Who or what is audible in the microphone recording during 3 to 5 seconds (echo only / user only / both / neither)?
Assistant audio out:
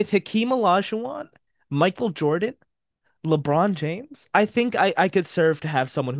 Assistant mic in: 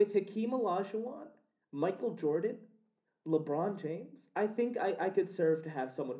echo only